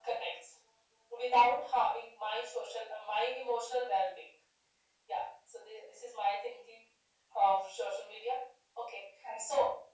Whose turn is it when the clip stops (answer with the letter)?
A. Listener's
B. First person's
B